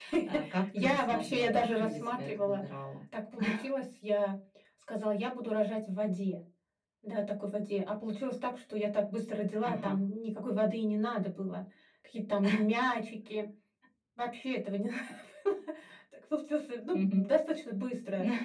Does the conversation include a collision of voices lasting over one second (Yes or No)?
Yes